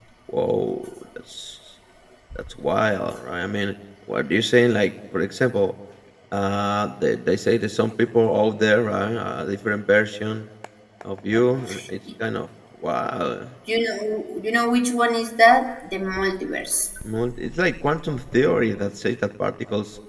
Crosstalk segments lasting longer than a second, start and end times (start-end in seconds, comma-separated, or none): none